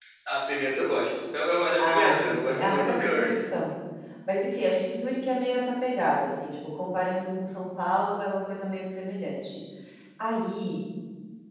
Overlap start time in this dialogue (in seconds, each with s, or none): 1.8 s